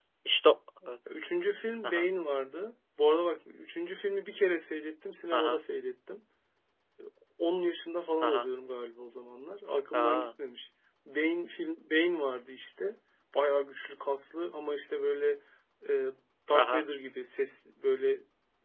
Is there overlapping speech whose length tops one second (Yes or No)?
No